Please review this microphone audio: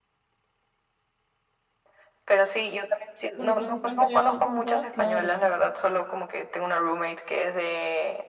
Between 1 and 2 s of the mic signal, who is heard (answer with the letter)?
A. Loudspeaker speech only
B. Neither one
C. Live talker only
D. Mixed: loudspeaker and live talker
B